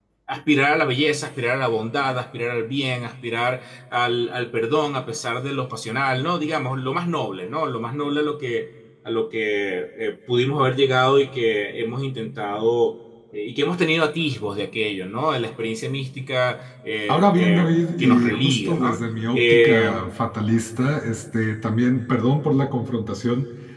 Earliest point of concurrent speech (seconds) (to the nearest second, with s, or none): 17 s